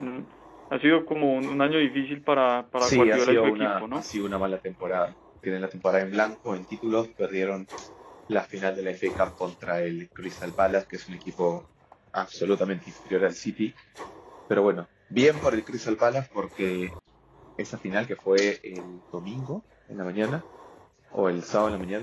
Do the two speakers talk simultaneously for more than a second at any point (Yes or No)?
Yes